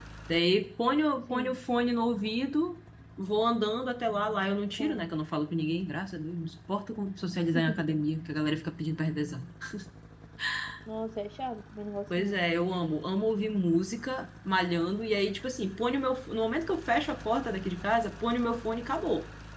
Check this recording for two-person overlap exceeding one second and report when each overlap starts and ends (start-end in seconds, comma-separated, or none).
none